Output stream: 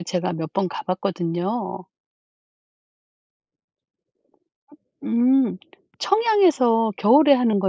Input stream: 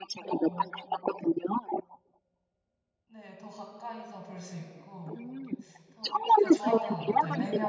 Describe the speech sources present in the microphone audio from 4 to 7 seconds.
both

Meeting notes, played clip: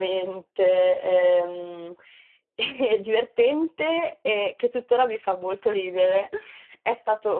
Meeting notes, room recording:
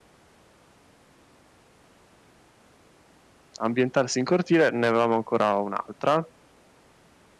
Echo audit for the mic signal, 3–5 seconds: user only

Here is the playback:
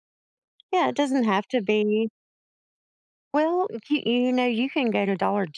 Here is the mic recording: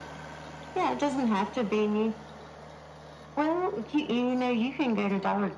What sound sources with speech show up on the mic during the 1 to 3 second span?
echo only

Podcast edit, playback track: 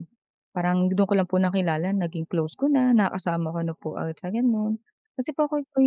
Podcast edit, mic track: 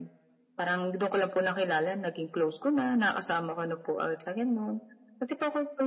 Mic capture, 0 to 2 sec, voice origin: echo only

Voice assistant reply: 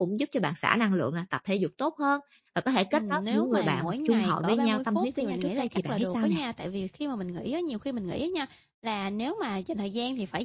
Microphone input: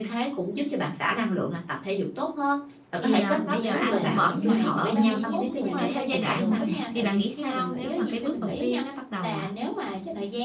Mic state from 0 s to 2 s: echo only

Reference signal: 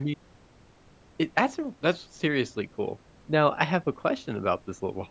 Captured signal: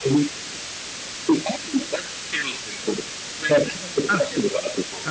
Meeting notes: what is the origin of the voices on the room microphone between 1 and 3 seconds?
echo only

